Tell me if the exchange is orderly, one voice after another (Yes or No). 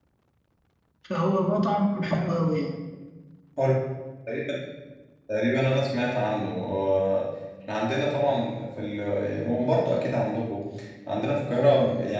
Yes